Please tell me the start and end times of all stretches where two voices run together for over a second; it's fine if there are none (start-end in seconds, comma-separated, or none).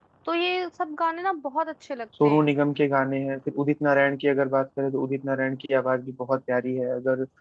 none